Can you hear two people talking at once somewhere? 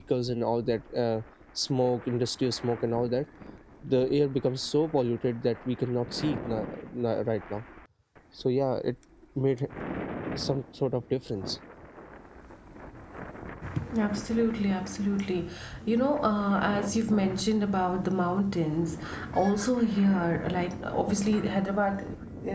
No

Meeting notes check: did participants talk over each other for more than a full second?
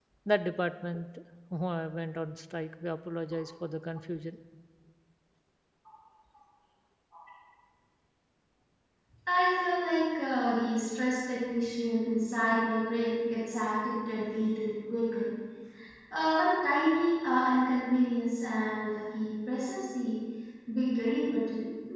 No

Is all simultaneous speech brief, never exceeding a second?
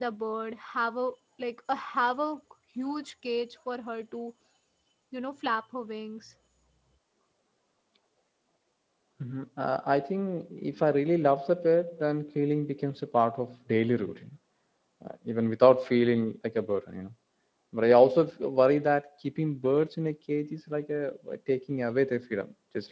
Yes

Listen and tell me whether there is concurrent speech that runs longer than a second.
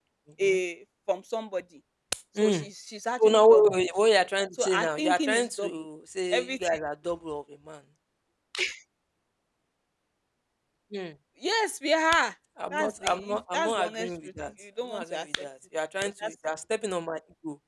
Yes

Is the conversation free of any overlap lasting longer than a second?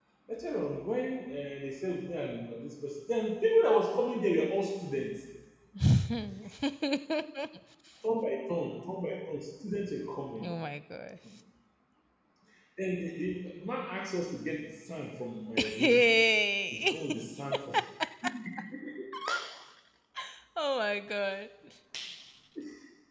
Yes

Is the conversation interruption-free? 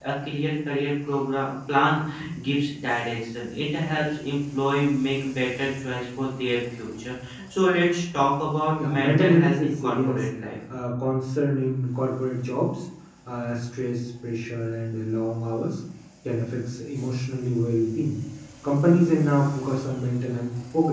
No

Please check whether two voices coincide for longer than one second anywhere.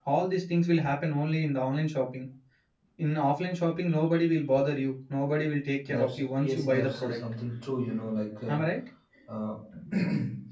Yes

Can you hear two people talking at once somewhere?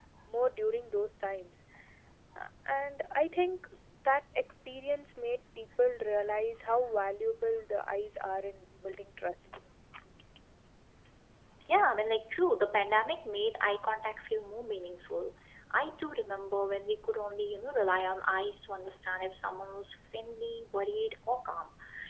No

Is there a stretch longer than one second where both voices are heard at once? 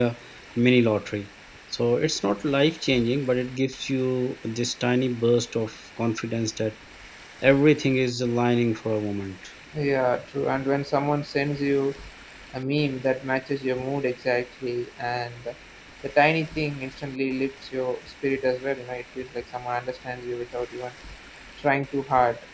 No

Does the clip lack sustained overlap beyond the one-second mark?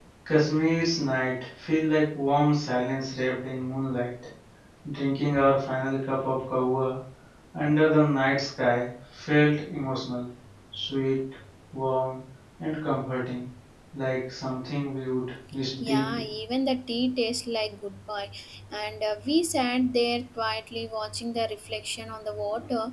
Yes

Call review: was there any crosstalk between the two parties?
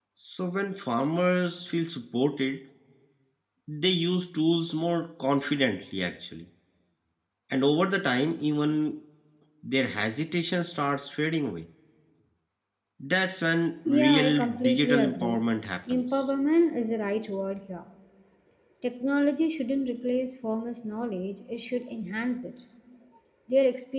Yes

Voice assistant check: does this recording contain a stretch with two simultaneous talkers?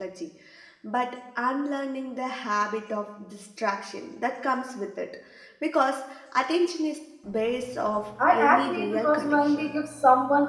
Yes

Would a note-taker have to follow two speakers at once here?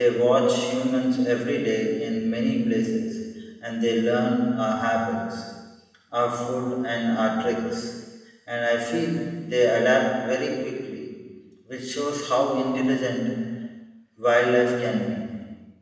No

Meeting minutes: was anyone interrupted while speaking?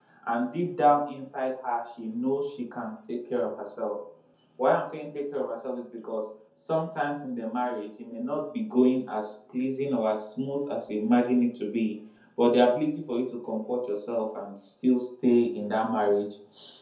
No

